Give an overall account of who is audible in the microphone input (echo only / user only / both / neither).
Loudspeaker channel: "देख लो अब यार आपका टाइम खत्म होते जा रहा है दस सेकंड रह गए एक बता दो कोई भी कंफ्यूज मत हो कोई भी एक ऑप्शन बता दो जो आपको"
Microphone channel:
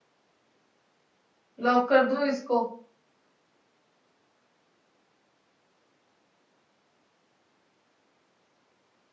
user only